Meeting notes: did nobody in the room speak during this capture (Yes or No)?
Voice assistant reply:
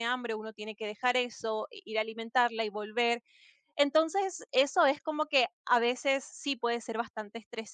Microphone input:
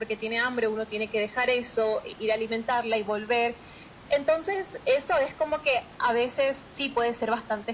Yes